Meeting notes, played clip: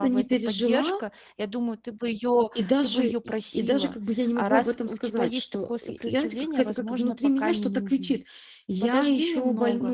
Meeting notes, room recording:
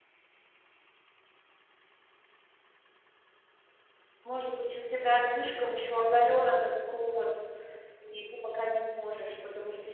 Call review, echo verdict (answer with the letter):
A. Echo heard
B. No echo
B